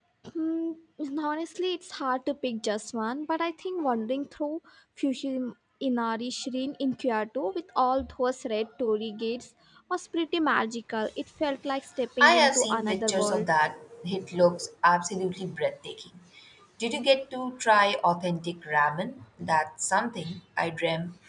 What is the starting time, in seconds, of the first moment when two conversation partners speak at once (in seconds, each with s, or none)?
12.2 s